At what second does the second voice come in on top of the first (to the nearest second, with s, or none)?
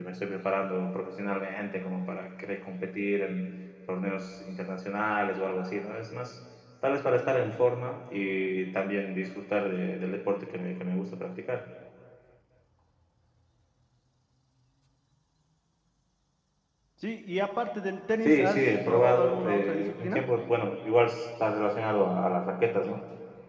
18 s